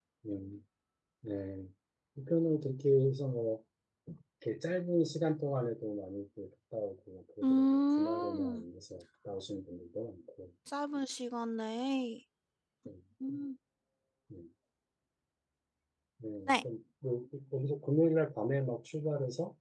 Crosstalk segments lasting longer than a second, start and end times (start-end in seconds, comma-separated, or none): 7.4-8.6